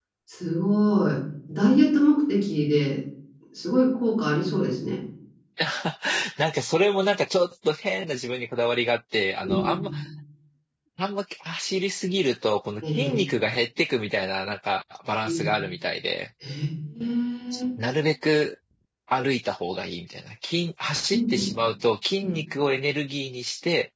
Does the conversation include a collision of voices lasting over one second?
No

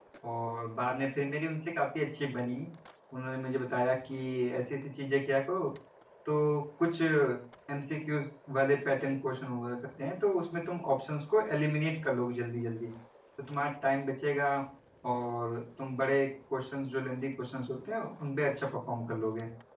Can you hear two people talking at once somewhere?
No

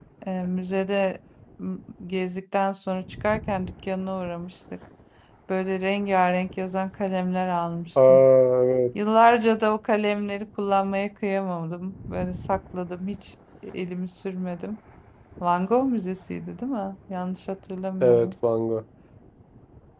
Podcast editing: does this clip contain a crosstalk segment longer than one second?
No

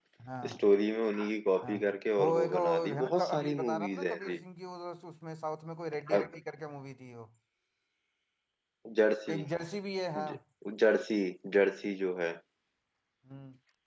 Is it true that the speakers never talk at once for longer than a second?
No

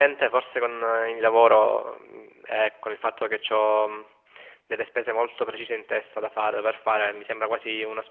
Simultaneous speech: No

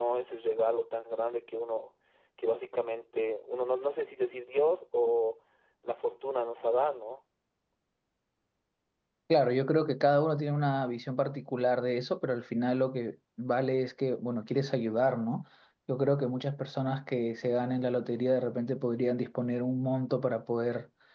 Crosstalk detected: No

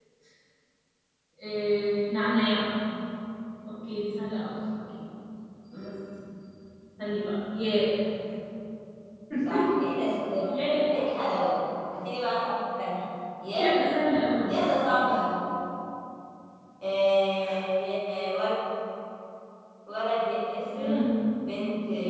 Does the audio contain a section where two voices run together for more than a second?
No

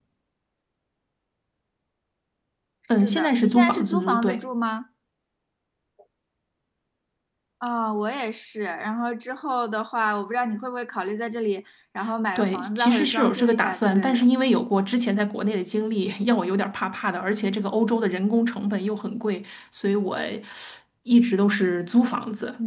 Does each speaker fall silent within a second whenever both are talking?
No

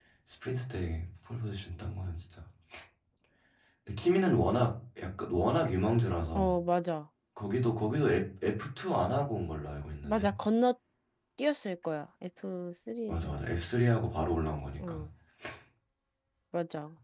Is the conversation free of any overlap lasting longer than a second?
Yes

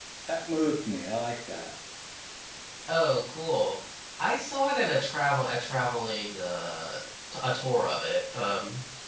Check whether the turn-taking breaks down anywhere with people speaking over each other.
No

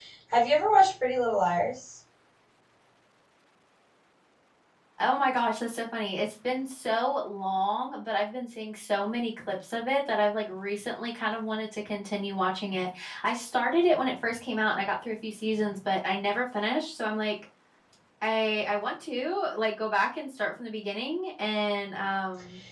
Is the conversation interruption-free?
Yes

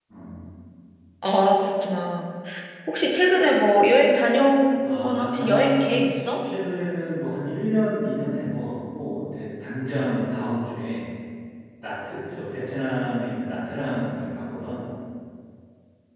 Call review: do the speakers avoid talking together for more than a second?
No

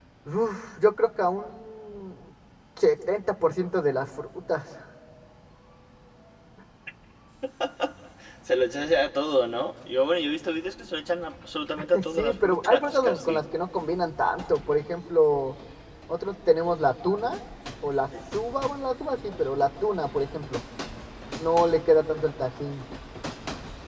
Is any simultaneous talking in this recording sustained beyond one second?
Yes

